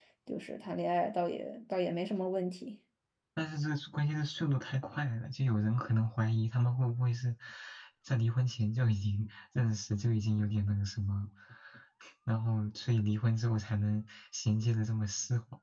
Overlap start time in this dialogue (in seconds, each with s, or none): none